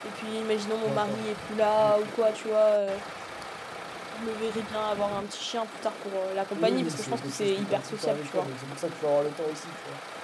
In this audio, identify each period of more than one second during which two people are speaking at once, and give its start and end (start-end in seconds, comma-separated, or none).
6.5-8.5